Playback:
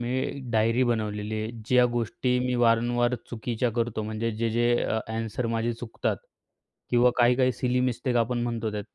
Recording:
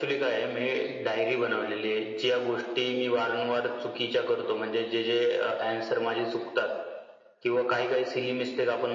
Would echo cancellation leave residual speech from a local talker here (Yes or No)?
No